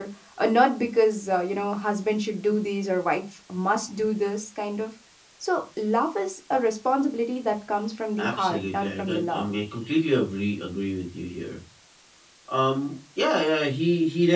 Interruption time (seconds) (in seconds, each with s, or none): 8.2 s